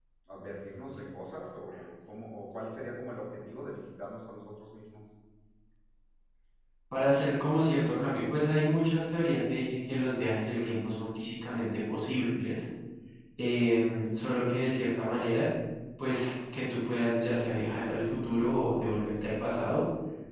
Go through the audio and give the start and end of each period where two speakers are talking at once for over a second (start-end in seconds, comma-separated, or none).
none